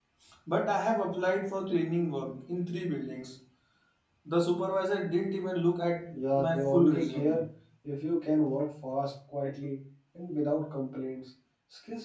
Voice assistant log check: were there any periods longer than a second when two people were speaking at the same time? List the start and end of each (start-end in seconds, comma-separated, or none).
6.1-7.4